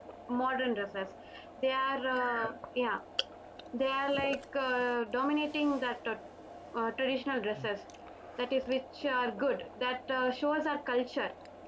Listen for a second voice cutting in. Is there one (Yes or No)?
No